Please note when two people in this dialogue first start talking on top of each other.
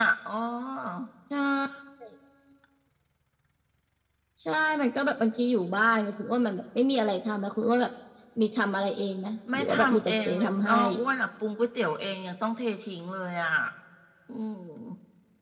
9.5 s

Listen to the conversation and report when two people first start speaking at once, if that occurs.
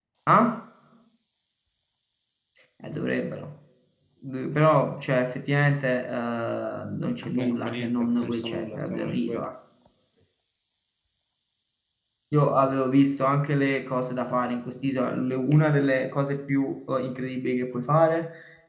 7.2 s

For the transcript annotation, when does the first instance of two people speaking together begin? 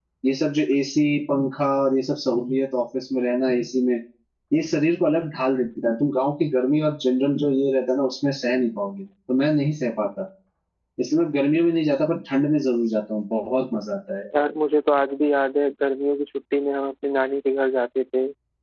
none

